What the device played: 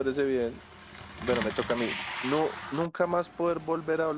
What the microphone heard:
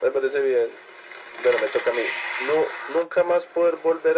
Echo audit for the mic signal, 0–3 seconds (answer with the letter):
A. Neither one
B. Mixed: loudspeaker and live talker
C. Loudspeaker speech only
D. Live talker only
C